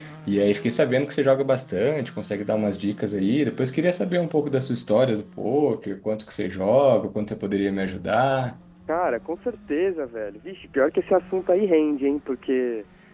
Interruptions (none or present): none